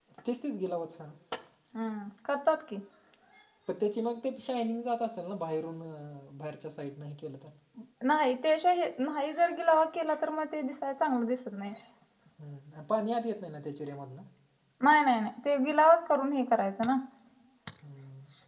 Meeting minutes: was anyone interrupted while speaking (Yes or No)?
No